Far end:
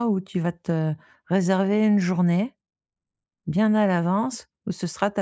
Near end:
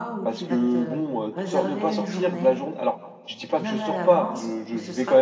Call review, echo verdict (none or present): present